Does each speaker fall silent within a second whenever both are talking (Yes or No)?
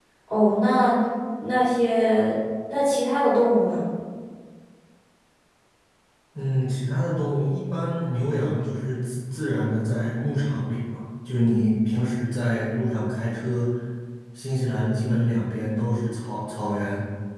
Yes